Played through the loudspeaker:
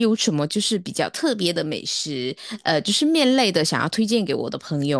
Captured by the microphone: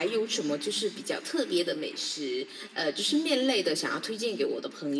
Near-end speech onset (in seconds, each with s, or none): none